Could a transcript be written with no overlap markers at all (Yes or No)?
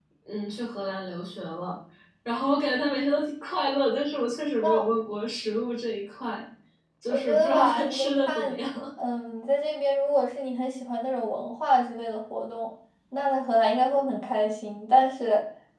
No